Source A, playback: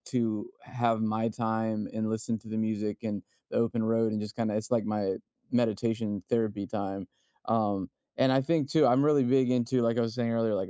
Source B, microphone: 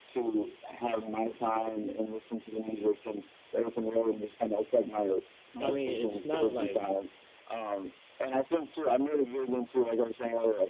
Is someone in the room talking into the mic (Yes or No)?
Yes